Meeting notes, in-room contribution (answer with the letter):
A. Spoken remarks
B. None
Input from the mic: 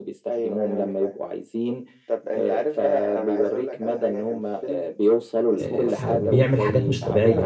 A